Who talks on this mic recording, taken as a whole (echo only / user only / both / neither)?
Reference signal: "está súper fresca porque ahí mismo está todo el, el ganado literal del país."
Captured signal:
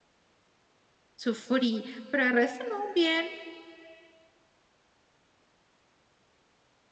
user only